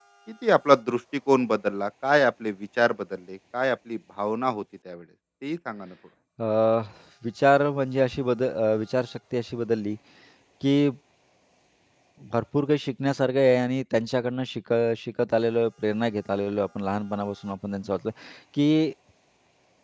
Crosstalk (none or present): none